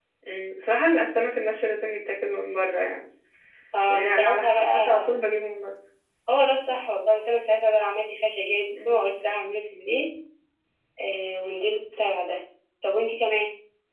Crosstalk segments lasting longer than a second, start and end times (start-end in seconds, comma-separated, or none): 3.9-5.2